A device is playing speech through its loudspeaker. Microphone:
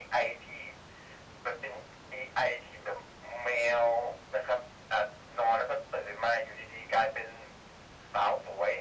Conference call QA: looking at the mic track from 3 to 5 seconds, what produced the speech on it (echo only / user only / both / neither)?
echo only